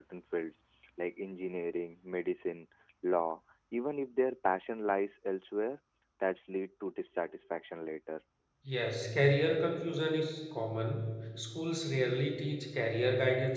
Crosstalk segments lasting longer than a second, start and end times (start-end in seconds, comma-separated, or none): none